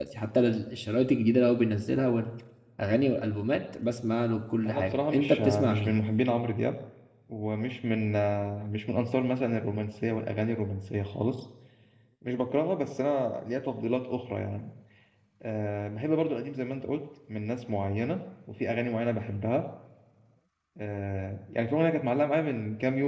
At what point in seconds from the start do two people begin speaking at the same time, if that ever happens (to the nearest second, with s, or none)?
5 s